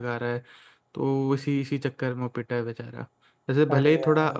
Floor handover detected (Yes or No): No